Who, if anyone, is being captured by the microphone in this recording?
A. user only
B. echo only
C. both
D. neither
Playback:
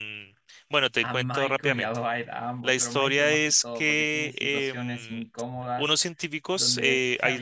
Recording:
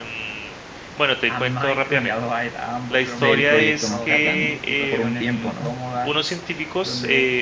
C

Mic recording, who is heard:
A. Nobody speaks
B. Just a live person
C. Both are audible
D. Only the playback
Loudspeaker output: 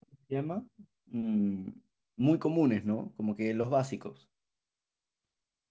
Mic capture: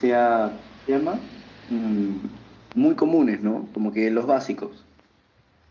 D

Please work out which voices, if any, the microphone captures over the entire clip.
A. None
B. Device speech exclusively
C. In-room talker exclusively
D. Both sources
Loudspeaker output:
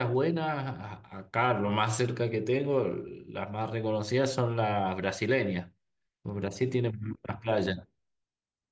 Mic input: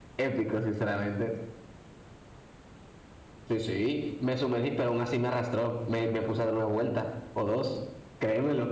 C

